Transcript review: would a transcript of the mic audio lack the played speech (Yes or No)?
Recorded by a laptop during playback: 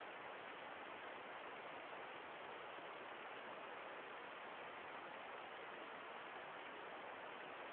Yes